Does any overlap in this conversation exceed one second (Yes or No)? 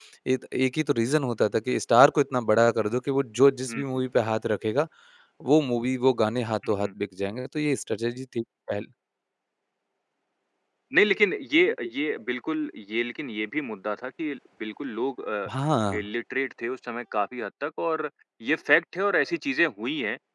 No